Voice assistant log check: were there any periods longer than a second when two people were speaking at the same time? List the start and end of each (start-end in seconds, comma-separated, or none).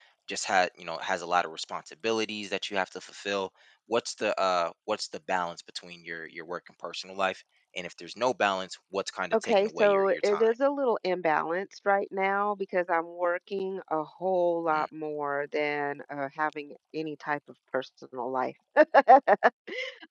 9.3-10.5